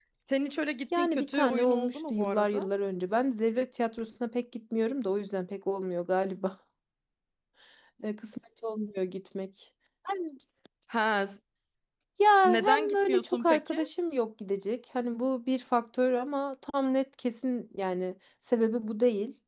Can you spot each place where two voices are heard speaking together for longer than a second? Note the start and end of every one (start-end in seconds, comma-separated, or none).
0.9-2.7, 12.4-13.8